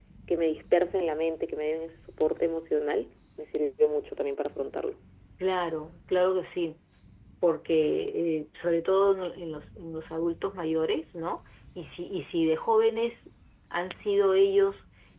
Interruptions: none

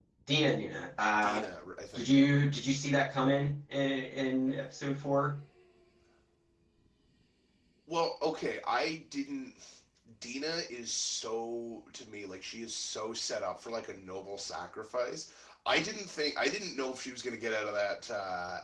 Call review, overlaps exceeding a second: none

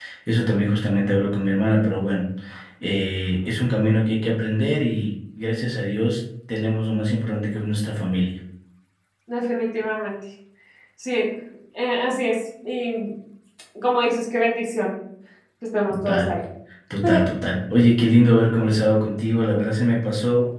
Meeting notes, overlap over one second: none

